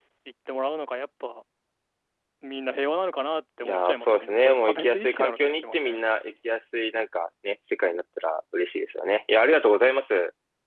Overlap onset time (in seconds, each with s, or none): 3.6 s